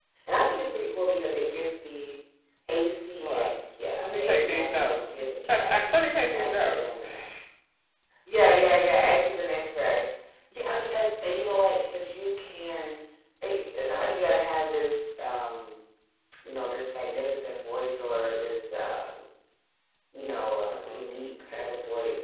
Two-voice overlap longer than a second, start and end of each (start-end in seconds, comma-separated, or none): 4.0-5.8